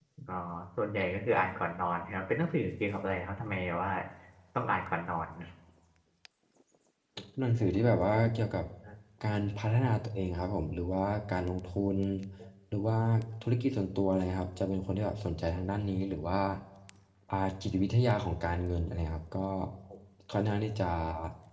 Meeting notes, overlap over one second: none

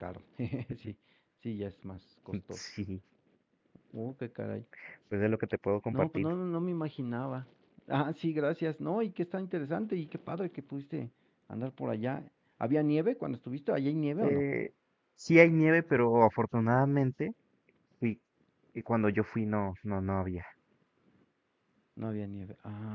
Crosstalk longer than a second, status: none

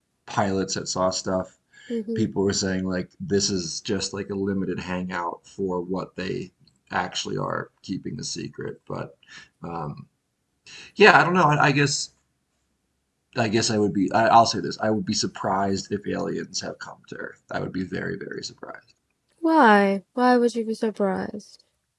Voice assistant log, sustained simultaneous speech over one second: none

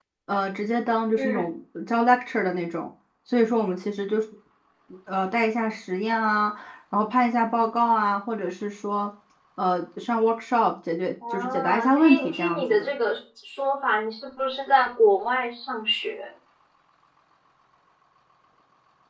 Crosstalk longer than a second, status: present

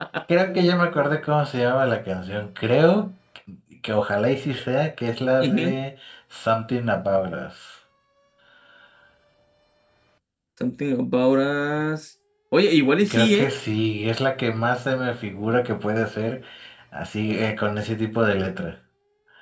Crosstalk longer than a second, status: none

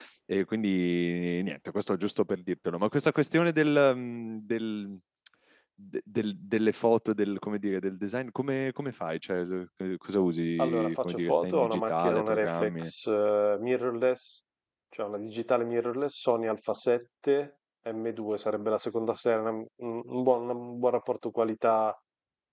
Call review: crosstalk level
present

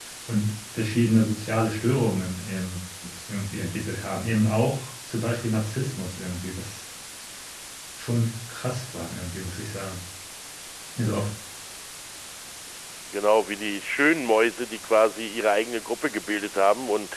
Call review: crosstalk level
none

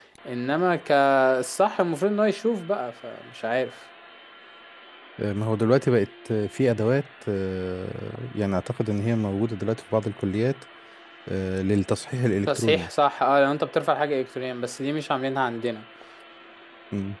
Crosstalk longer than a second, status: none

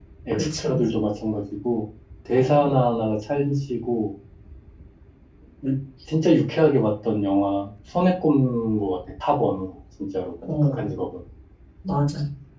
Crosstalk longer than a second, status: none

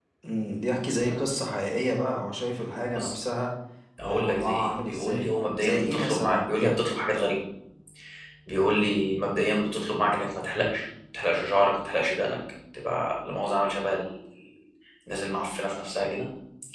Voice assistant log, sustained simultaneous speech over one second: present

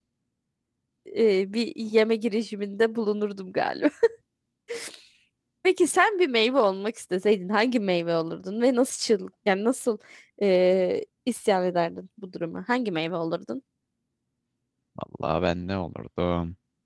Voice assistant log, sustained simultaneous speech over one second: none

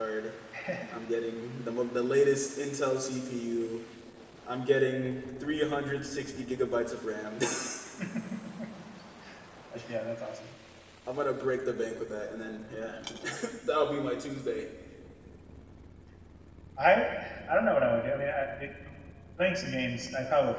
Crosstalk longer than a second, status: none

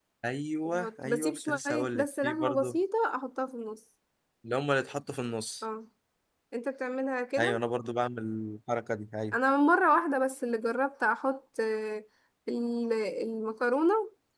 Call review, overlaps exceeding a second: present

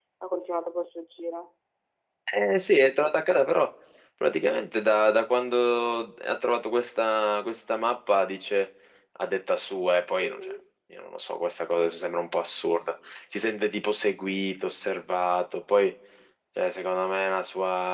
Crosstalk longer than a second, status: none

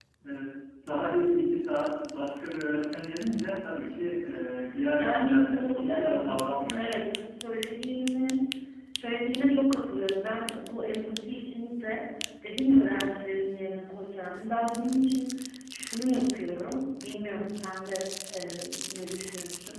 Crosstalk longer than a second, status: present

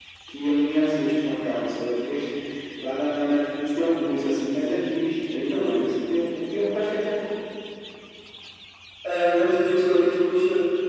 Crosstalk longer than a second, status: none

